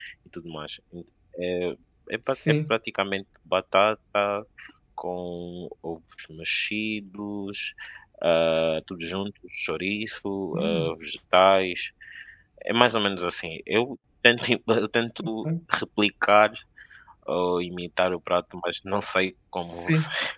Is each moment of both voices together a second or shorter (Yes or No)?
Yes